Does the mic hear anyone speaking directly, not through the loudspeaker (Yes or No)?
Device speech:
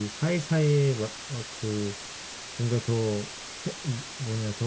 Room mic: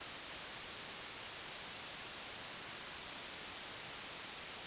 No